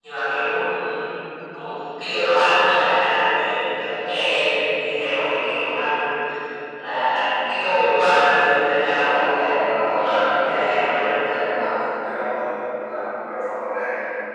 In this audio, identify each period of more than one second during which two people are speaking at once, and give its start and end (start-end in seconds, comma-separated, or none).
8.9-11.3